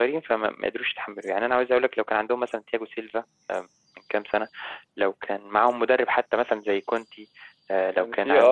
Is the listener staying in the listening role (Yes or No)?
No